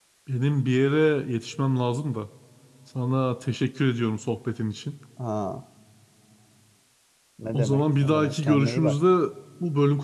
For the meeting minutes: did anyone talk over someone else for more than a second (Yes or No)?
Yes